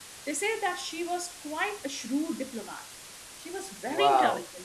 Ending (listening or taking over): taking over